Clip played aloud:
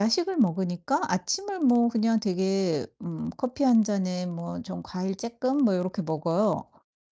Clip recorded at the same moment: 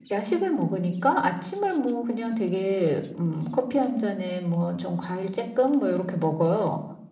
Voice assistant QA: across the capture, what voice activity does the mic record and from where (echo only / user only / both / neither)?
echo only